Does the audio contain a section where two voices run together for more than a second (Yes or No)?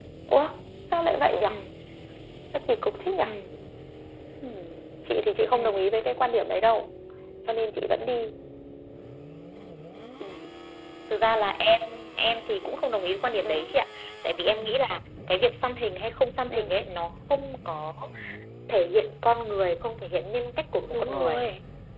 No